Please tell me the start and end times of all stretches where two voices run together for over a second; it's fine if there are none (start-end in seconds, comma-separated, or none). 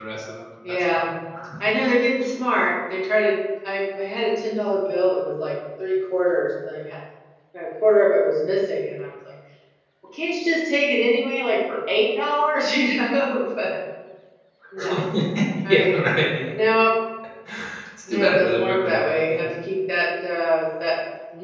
18.1-19.5